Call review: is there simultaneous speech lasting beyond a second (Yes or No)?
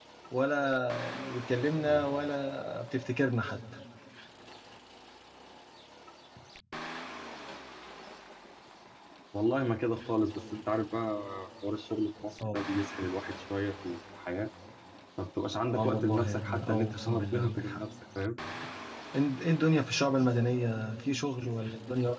Yes